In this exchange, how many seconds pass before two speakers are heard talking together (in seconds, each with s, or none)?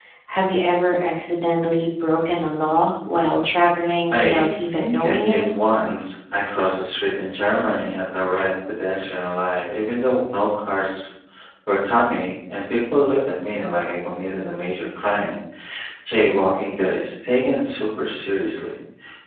4.1 s